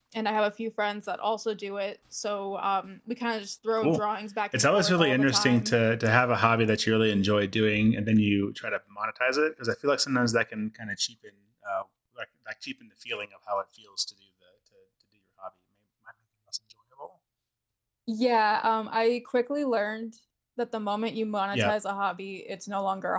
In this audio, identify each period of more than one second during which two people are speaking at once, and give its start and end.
4.5-5.7

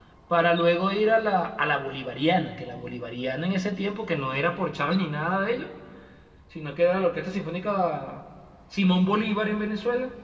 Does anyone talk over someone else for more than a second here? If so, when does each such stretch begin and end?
none

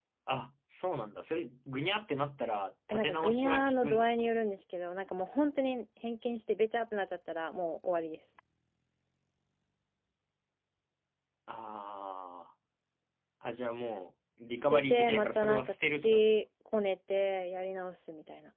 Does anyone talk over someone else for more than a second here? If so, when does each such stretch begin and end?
2.9-4.1, 14.6-16.2

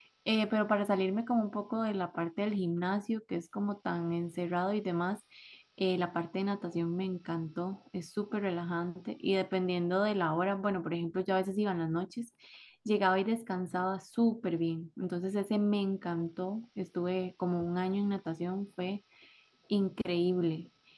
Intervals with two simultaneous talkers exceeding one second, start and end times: none

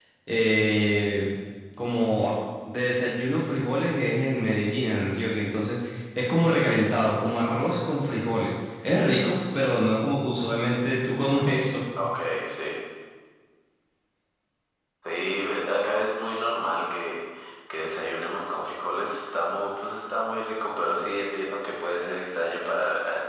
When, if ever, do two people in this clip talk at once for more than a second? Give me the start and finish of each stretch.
none

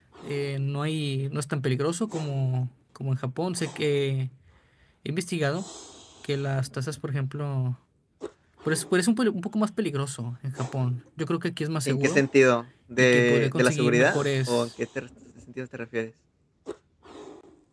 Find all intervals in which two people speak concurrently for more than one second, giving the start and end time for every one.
13.0-14.7

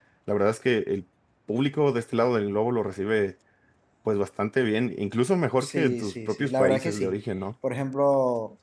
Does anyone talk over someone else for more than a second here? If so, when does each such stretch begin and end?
5.6-7.1

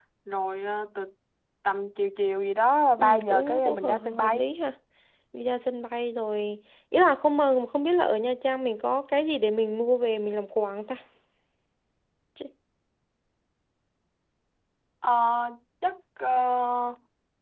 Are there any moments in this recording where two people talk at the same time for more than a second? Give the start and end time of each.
3.0-4.5

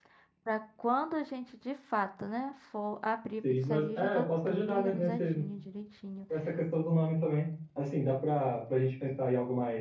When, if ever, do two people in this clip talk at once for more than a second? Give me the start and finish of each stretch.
3.6-5.4

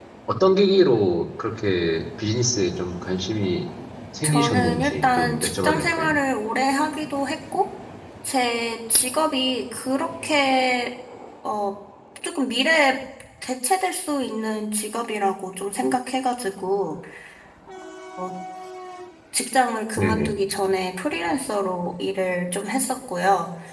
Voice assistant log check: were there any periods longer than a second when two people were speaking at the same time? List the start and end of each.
4.2-6.1

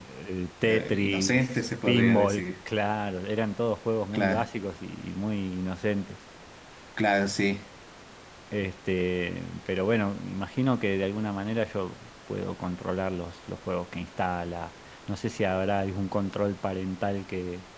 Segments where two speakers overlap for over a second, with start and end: 0.6-2.4

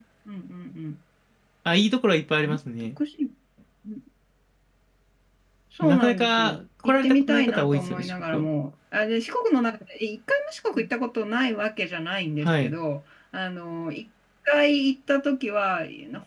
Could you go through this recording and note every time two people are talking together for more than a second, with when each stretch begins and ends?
5.8-8.5

